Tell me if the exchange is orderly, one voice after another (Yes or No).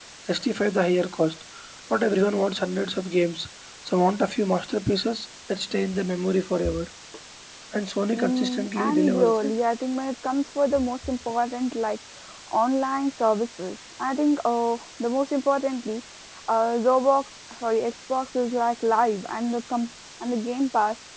No